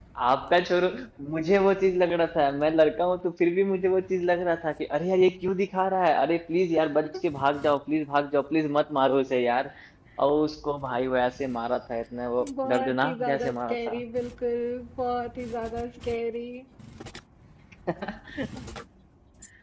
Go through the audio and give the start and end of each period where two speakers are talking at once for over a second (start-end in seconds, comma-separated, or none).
12.6-14.0